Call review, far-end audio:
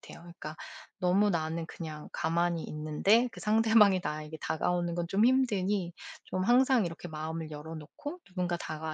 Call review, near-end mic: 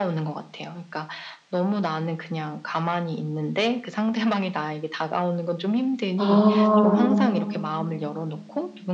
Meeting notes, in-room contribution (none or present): present